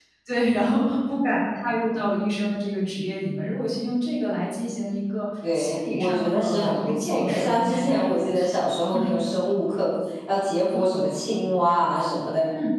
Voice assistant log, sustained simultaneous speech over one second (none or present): present